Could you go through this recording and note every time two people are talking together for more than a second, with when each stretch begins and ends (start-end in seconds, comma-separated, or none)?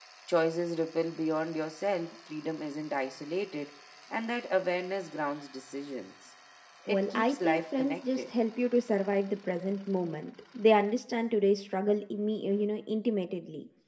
6.9-8.3